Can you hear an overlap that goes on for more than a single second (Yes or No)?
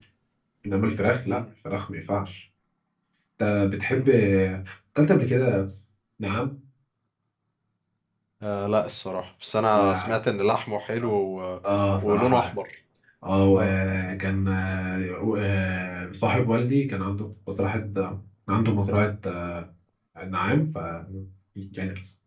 No